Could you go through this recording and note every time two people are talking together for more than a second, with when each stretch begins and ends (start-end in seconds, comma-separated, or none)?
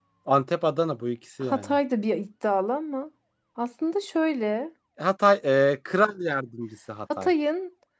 none